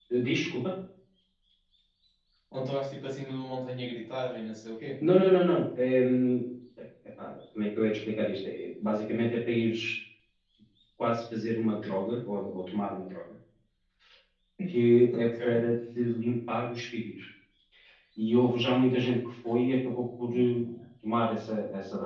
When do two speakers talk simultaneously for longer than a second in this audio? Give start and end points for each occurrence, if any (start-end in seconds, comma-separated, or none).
none